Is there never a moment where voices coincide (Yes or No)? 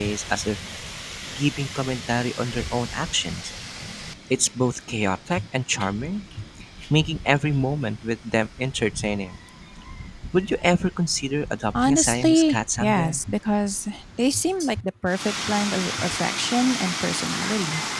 No